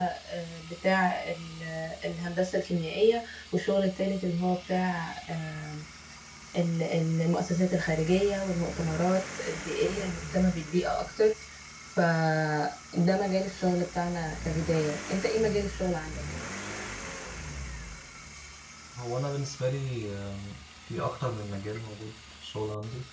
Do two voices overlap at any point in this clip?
No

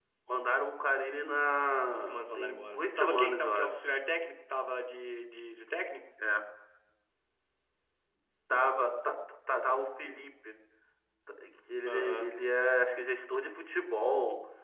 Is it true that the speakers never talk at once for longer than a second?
No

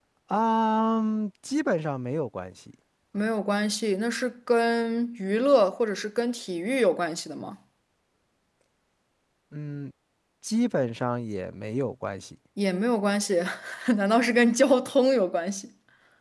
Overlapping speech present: No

